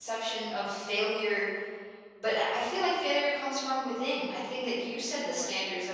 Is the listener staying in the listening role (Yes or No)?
Yes